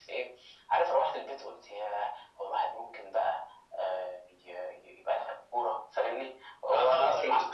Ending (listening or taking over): taking over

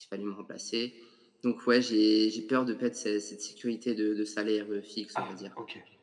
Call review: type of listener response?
taking over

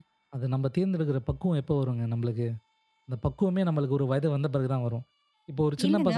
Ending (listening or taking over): taking over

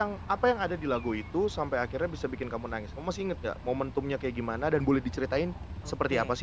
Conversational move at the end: taking over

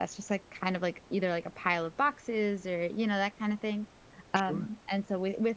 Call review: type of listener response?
listening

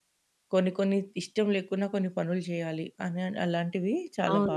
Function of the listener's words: taking over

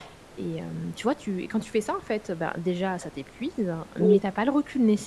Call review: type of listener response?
listening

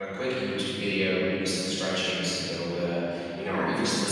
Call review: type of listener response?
listening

